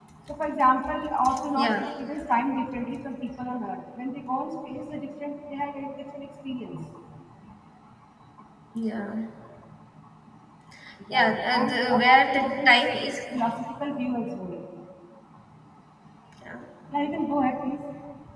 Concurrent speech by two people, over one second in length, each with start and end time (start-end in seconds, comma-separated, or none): 11.1-12.7